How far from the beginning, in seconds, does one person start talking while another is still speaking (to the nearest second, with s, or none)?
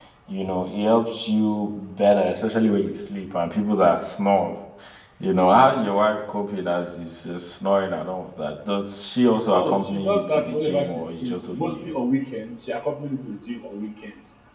10 s